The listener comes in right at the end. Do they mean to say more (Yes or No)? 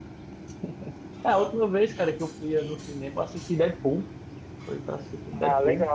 Yes